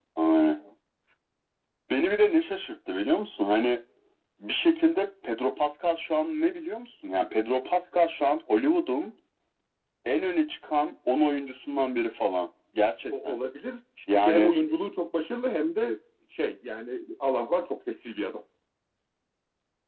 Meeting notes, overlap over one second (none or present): none